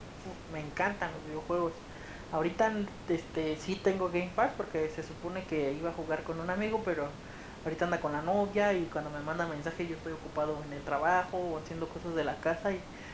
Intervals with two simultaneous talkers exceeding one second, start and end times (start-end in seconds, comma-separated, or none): none